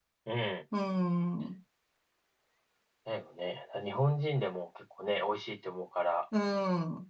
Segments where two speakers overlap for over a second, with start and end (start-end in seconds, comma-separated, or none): none